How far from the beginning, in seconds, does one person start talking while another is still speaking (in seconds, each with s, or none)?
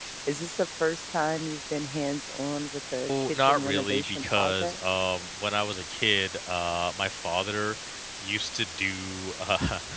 3.1 s